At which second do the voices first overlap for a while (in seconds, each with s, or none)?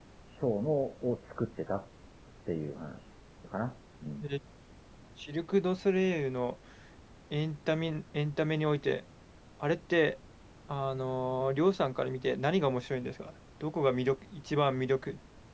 none